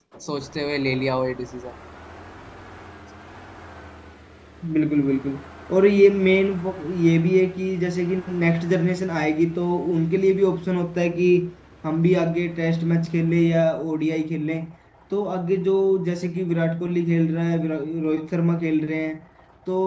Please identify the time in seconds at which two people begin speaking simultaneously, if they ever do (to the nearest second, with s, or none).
none